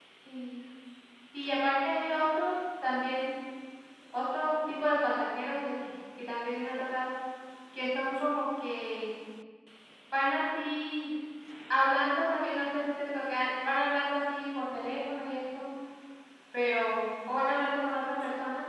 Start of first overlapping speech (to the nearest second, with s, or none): none